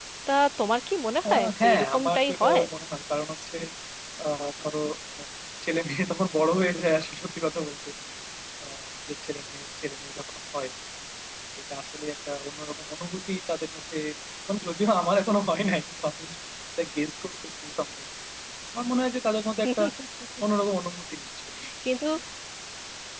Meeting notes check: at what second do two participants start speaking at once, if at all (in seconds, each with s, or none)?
1.3 s